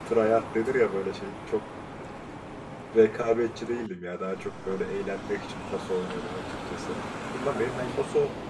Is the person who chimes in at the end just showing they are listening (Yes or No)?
Yes